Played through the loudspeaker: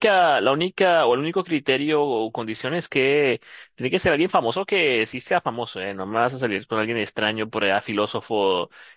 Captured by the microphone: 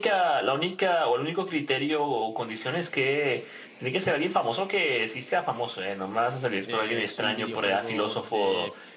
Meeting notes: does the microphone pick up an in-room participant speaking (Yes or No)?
Yes